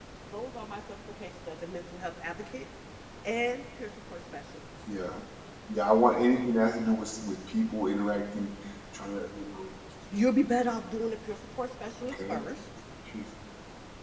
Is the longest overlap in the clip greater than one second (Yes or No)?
No